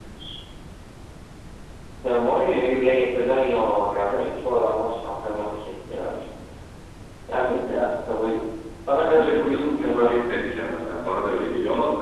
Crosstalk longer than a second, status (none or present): present